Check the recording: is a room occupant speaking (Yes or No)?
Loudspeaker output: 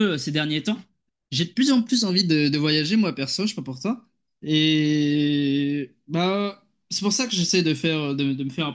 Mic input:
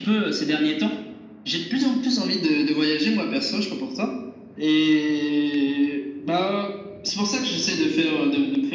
No